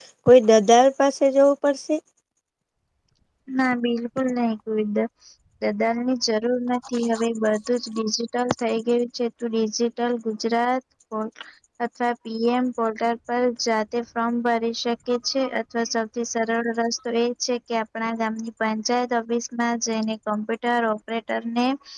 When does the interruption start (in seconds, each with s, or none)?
none